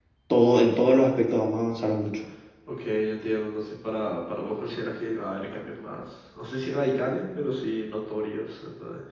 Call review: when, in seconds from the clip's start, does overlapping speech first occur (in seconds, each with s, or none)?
none